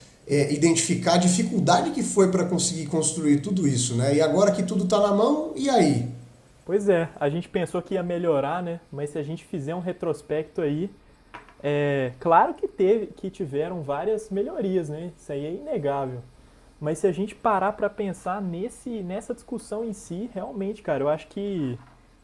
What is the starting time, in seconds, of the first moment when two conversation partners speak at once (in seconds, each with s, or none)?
none